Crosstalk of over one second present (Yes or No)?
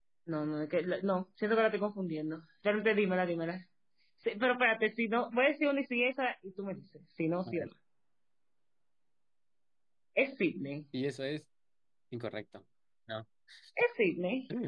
No